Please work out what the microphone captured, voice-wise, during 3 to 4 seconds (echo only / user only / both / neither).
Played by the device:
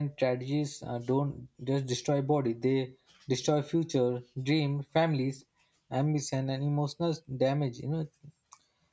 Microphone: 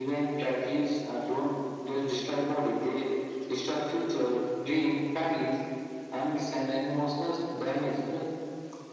echo only